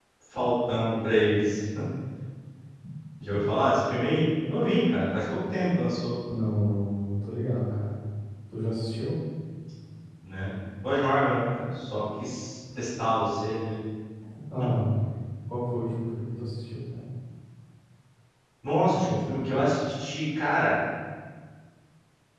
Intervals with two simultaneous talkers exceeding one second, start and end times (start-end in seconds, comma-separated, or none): none